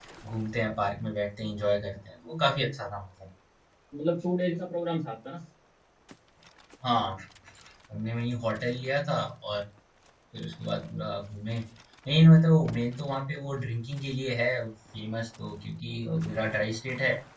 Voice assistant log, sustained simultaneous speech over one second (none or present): none